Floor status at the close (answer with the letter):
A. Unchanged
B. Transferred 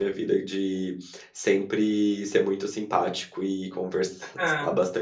A